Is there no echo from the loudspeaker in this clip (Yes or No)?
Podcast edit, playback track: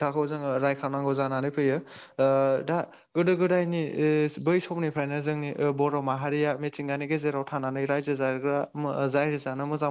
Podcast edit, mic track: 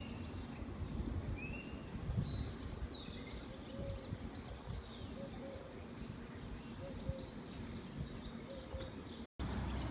Yes